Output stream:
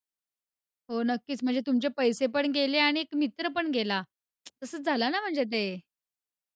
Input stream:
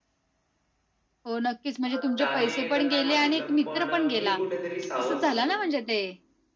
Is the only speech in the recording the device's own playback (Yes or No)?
No